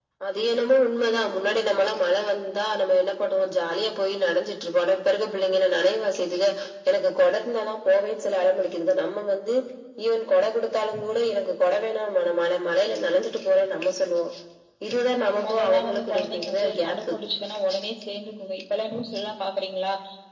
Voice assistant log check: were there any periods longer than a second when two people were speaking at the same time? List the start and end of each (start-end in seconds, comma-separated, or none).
15.4-17.1